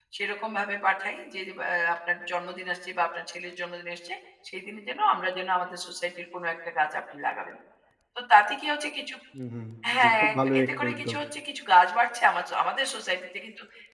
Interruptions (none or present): present